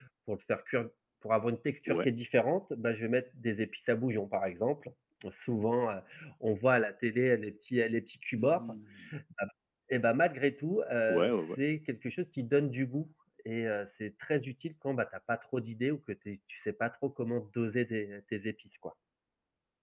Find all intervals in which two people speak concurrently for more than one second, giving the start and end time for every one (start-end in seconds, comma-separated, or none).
none